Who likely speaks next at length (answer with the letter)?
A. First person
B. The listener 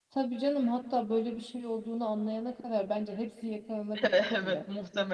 B